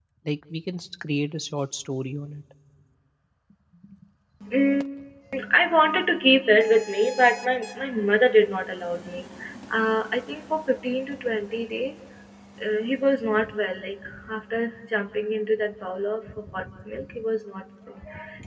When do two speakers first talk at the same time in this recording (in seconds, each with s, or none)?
none